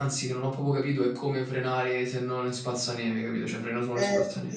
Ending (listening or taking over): taking over